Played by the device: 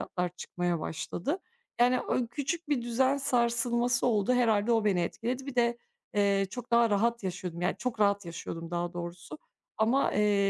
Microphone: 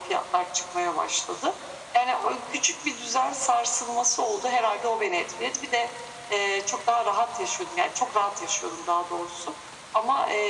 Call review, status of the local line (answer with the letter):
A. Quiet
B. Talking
A